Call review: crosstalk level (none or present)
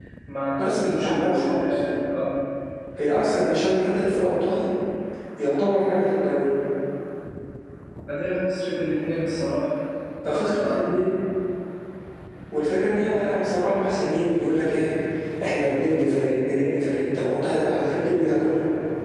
present